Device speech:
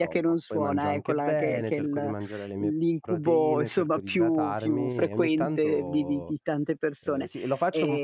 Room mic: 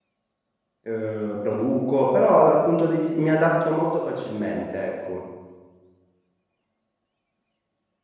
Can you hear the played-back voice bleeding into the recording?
No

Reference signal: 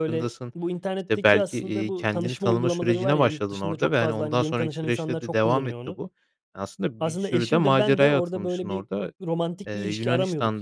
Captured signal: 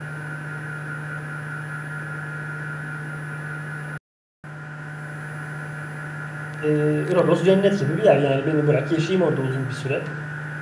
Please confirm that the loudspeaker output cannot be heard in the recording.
Yes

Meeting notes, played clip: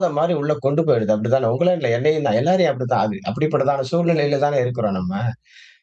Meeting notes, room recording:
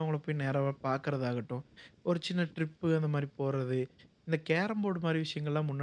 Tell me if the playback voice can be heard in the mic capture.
No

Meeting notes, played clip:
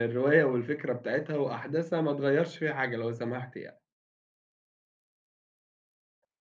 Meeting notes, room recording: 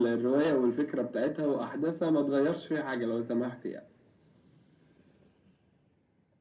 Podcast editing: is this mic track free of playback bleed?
No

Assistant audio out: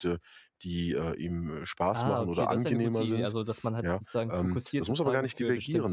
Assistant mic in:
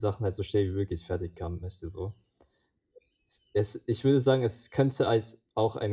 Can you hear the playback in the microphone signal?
No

